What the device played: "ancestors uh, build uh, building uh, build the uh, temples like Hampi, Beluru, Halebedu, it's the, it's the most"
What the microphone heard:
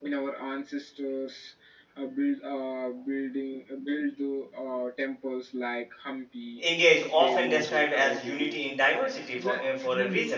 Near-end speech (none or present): present